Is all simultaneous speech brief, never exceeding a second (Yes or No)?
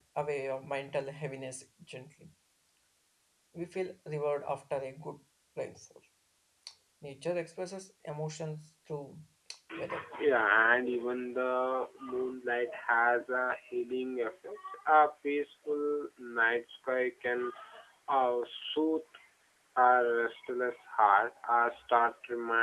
Yes